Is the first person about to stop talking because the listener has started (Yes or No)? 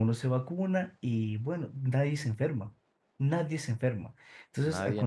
No